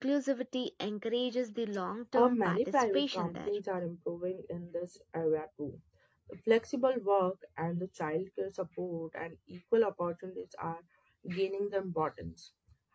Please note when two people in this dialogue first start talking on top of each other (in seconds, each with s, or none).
2.1 s